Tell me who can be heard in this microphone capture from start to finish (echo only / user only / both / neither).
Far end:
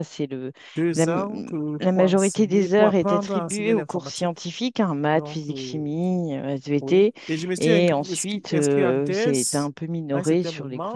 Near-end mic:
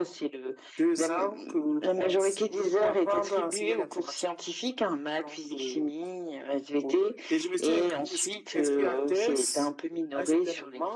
echo only